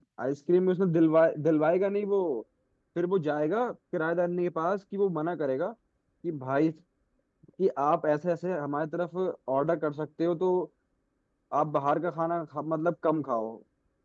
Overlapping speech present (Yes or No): No